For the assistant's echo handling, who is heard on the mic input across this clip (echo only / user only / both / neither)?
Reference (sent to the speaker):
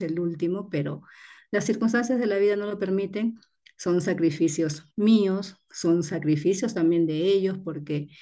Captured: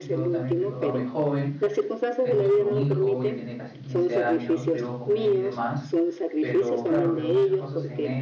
both